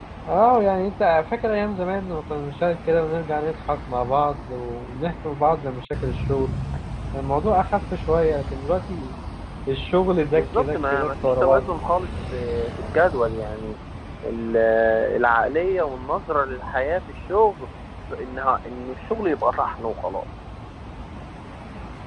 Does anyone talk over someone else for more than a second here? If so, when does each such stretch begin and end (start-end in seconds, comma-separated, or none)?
10.3-11.7